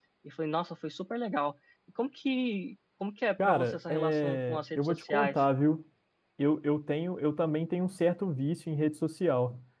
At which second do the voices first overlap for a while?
3.4 s

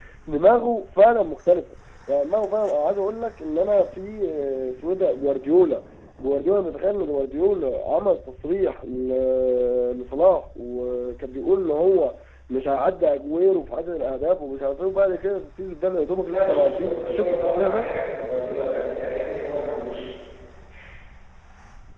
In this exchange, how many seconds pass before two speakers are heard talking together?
16.2 s

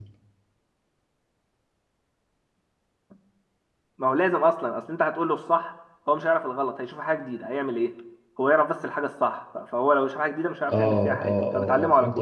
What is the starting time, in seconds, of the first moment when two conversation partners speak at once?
10.7 s

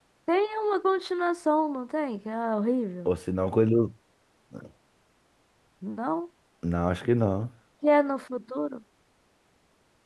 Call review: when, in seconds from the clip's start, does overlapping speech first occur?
none

